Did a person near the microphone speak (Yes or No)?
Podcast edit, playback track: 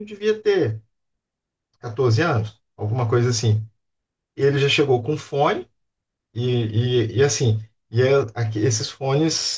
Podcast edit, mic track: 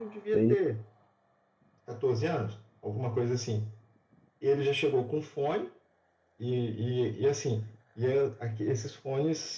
Yes